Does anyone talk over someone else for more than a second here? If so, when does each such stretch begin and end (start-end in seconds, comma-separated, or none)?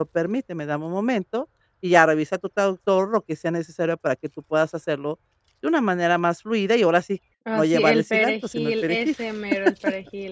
7.5-9.2